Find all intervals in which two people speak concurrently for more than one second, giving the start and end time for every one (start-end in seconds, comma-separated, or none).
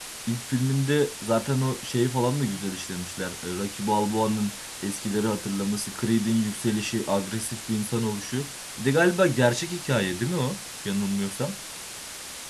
none